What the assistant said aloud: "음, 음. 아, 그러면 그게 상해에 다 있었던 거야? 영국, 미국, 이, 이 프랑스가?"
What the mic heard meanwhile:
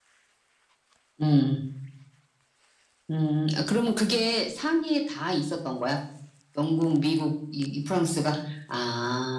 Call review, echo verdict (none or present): present